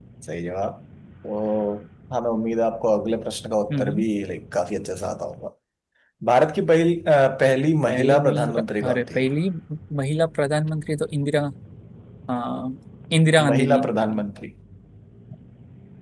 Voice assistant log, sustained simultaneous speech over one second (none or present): present